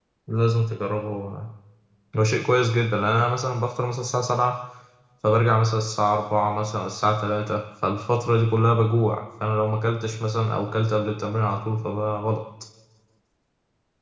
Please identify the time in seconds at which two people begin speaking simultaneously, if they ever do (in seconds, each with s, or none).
none